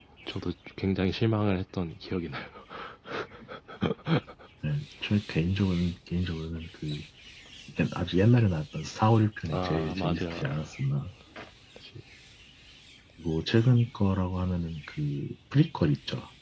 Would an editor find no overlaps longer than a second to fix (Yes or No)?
No